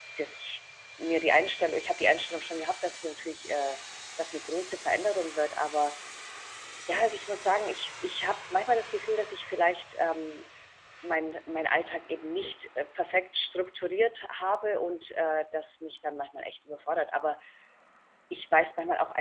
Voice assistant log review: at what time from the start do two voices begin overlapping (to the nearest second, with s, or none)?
none